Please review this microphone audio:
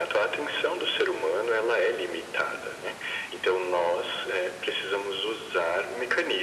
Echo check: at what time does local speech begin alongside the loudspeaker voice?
none

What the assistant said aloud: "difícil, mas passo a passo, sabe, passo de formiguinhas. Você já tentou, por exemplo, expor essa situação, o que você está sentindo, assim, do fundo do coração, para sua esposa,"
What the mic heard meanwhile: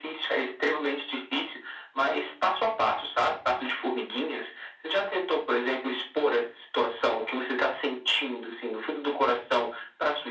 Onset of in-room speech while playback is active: none

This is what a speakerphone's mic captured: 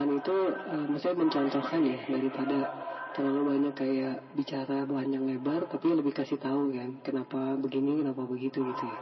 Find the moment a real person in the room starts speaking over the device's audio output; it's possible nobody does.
none

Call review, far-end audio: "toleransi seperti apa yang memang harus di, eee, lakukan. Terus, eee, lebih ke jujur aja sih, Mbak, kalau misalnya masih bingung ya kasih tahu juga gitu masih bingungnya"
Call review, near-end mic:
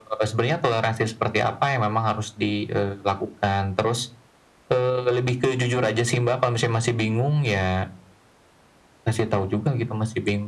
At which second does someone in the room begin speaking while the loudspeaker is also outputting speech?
none

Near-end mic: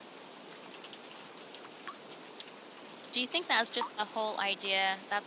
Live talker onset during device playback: 3.1 s

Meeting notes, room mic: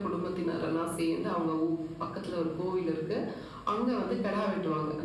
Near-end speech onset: none

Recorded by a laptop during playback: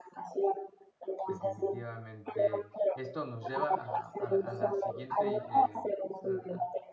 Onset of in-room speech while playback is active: 1.3 s

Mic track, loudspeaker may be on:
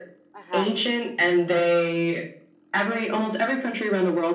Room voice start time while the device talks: 0.3 s

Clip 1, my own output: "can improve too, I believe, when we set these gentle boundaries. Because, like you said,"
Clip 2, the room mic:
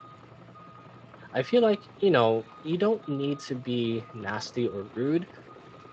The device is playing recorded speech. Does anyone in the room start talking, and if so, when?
1.3 s

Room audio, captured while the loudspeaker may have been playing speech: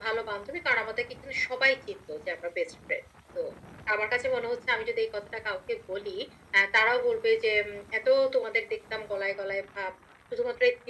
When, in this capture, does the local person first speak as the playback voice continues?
none

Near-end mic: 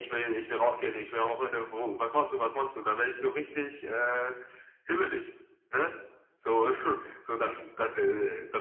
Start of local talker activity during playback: none

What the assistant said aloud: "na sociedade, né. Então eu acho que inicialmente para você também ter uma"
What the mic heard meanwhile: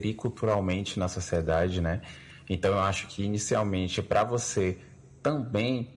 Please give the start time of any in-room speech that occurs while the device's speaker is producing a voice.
none

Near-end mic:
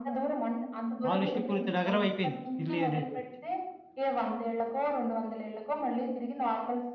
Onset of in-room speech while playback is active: 1.0 s

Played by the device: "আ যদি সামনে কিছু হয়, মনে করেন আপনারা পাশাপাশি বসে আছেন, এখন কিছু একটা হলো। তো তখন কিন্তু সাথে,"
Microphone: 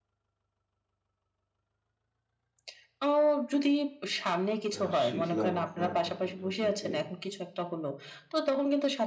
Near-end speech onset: 4.8 s

